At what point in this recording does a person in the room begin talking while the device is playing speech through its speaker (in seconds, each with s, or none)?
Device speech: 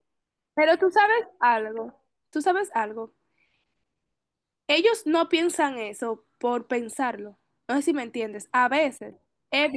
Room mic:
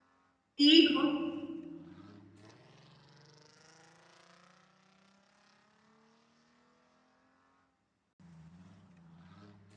0.6 s